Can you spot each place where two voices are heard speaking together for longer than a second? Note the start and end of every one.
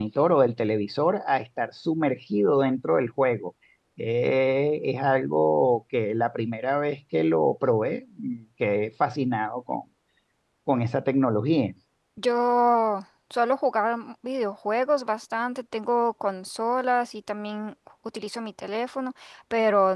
none

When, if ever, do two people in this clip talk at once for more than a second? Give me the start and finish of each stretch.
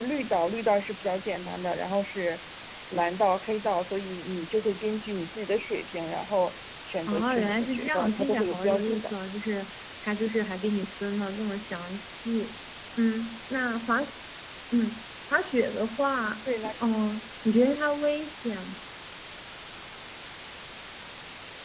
7.1-9.2

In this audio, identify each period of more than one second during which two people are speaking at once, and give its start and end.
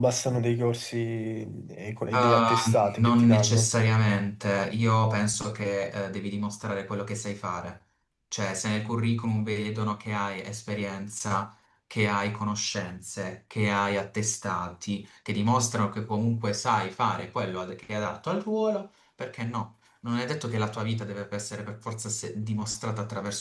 2.1-3.7

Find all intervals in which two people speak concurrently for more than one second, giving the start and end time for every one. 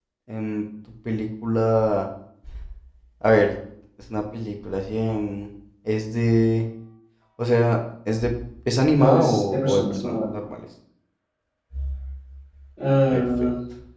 9.0-10.3

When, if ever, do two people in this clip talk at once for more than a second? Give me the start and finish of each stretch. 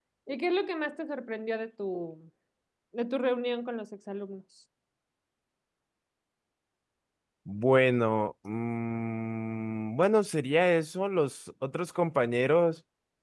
none

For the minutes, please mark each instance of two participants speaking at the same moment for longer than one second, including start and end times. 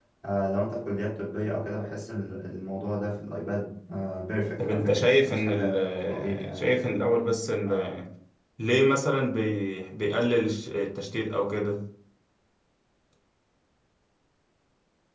4.6-6.9

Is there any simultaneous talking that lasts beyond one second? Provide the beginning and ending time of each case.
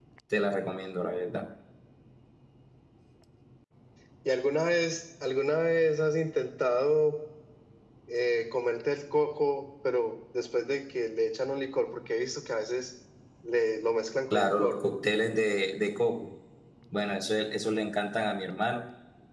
none

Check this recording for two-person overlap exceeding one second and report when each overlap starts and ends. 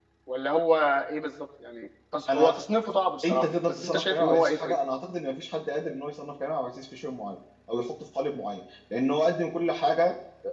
3.2-4.8

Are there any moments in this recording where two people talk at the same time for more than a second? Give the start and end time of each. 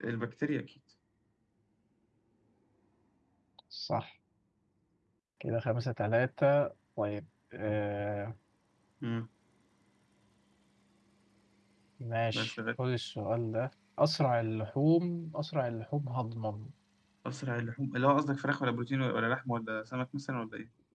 none

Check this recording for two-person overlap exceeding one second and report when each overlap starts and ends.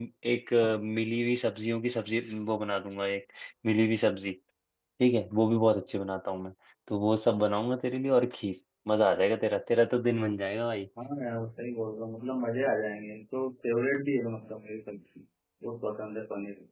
none

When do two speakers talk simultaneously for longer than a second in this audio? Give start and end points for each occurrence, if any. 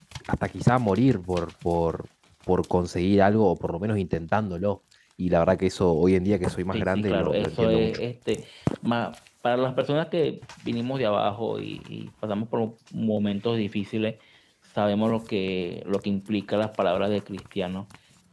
6.7-8.0

